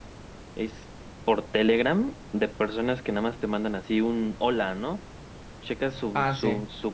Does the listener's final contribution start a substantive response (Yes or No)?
No